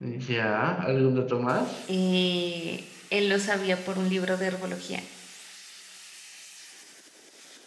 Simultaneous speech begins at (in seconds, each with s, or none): none